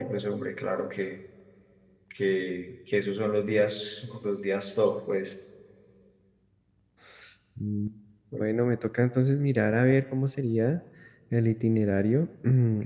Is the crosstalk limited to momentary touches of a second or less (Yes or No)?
Yes